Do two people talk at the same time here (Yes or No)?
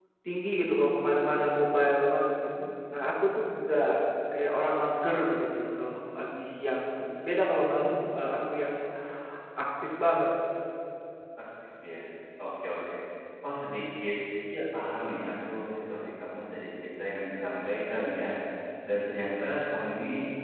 No